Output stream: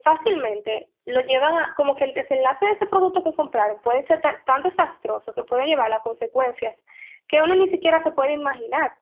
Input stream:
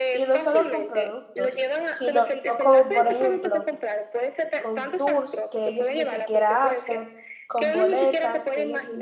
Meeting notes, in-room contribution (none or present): present